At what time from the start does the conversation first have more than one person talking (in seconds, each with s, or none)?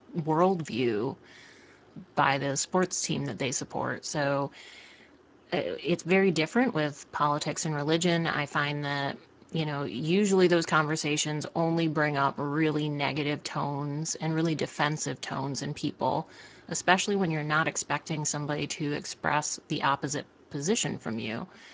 none